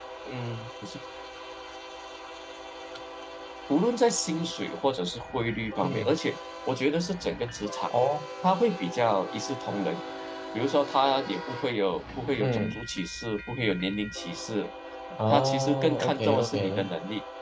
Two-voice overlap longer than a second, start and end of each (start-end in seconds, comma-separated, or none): 15.3-16.9